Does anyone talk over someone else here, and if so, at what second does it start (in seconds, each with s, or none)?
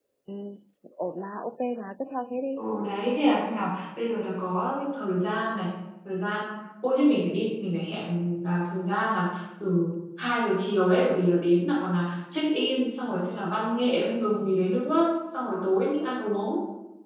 none